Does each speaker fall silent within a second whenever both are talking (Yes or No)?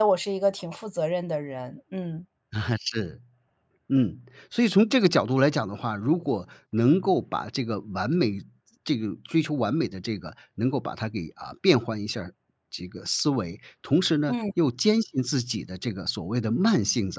Yes